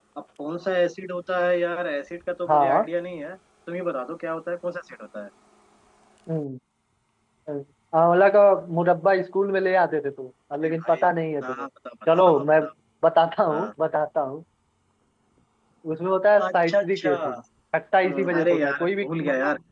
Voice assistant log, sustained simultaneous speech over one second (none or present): present